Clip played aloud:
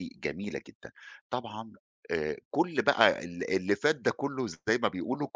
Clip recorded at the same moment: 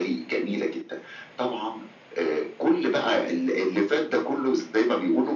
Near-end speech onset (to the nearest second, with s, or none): none